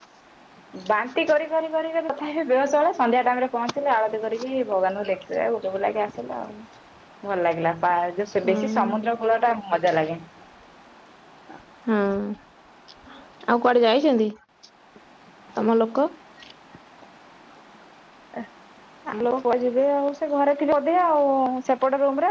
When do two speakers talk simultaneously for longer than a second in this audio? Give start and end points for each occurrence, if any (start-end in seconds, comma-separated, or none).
none